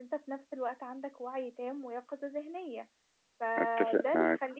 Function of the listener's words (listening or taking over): listening